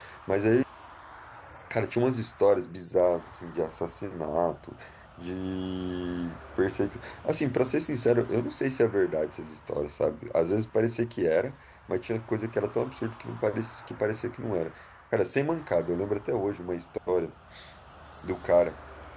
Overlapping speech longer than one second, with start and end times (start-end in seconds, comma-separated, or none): none